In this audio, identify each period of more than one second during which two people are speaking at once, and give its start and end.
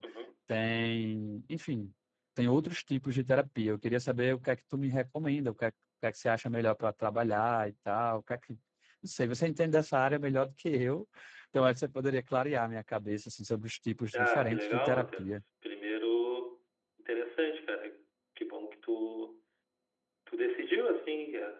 14.1-15.4

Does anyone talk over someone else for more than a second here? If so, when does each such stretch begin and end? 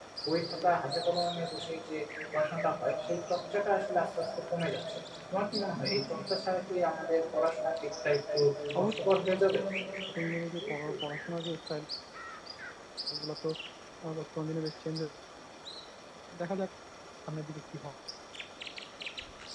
none

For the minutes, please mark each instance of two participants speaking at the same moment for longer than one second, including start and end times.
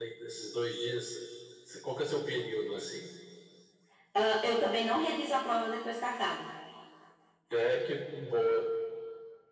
none

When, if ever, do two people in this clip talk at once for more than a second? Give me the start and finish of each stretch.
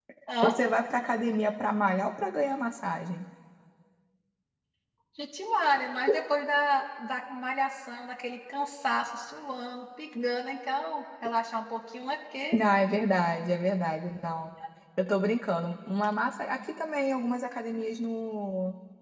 none

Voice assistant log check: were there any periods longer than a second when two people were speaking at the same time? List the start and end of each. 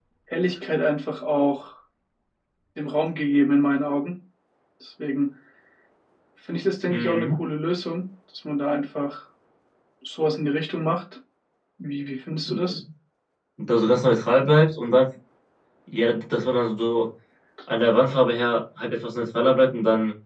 none

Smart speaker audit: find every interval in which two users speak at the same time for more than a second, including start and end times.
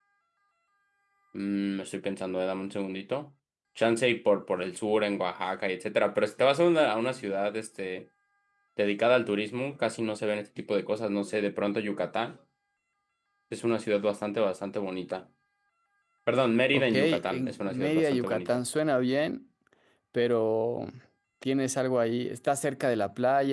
16.7-18.6

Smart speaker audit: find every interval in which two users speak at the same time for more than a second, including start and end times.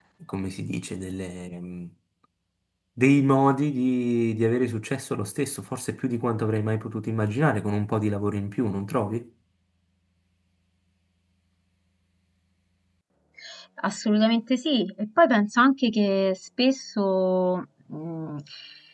none

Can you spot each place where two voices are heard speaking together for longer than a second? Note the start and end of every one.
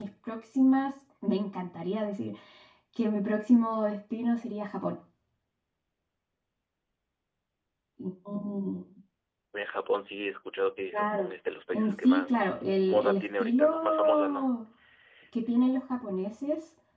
11.7-14.5

